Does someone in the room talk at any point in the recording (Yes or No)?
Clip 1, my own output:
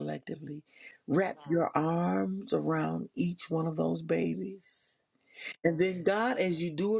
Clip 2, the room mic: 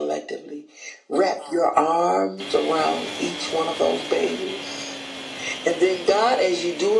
No